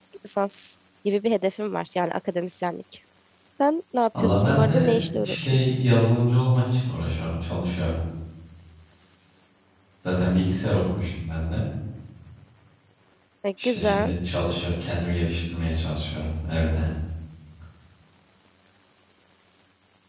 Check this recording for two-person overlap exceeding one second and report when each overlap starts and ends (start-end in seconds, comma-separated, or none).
4.2-5.7